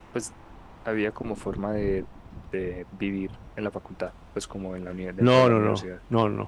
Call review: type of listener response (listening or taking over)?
taking over